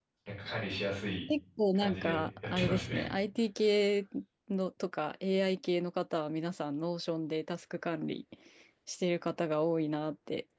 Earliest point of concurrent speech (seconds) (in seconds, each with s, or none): 1.8 s